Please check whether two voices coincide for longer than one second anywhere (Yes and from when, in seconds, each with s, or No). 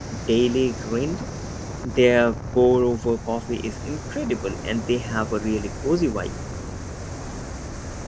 No